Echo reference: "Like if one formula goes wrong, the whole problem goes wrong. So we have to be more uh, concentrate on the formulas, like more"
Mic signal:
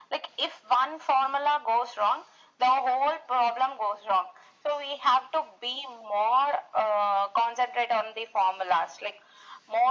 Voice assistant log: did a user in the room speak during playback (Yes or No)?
No